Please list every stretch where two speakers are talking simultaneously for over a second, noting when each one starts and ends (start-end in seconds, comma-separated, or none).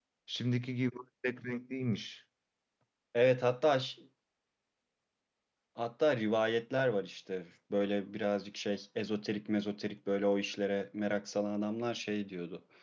none